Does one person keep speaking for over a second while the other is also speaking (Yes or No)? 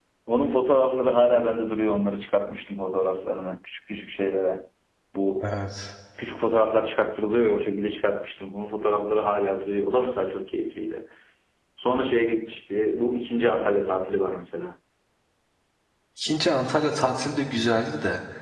No